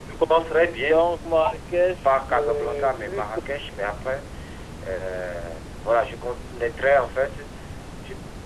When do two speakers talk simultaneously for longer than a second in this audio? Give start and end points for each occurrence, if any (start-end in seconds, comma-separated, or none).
2.0-3.2